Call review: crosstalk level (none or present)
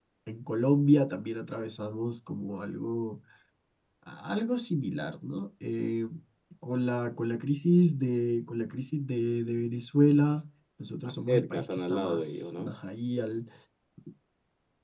present